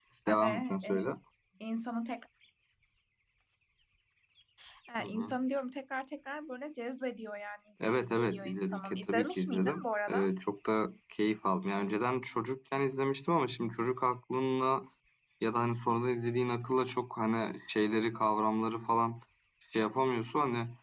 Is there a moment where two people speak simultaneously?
Yes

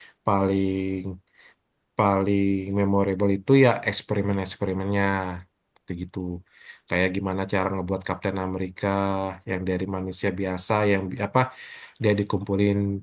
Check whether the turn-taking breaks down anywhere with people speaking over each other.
No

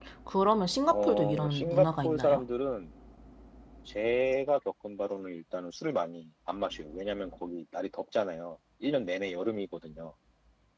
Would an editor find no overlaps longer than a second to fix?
No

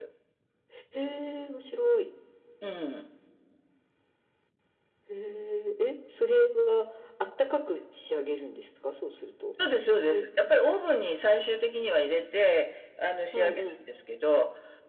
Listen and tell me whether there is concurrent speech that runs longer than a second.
No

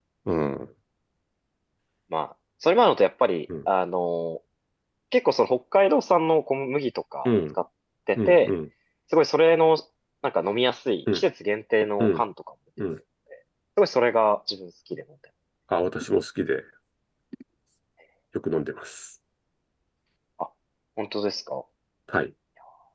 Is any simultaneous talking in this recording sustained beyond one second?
No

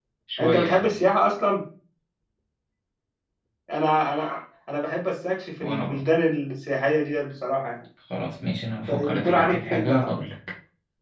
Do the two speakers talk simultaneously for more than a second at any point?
Yes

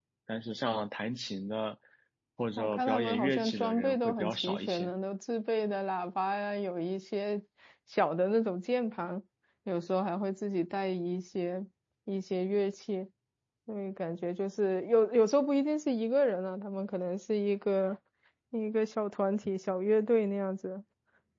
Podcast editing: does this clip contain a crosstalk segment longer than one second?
Yes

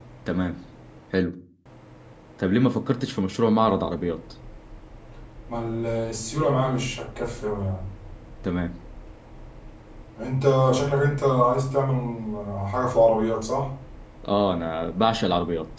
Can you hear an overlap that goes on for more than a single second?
No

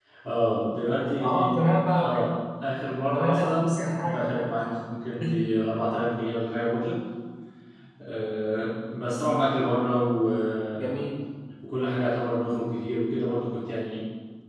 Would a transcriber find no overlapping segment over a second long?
No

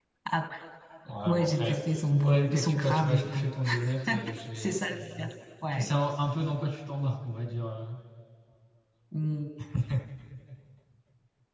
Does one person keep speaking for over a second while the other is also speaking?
Yes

